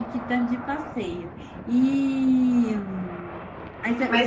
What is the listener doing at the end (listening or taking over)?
taking over